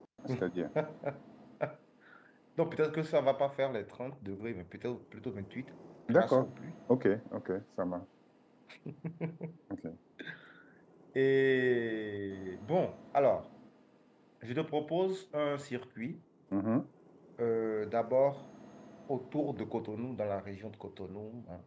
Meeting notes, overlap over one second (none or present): none